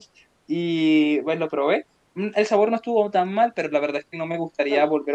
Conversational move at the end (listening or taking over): listening